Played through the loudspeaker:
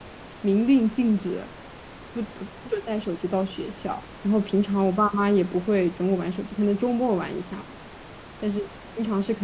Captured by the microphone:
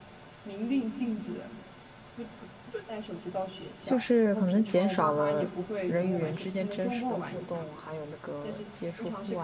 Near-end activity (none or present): present